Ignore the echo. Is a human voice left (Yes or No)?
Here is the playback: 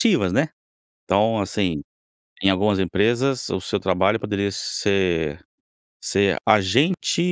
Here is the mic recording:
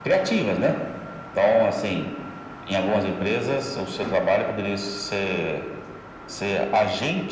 No